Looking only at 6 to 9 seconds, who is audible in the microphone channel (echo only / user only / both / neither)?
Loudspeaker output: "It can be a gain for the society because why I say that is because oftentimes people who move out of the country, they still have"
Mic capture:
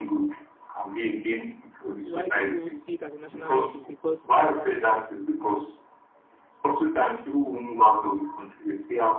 echo only